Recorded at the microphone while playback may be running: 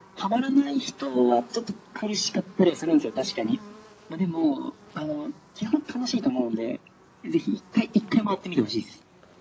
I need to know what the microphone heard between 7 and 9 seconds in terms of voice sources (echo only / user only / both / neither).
echo only